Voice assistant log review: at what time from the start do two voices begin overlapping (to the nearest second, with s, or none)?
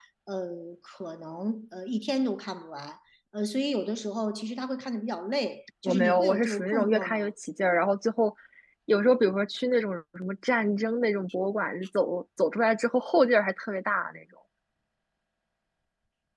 6 s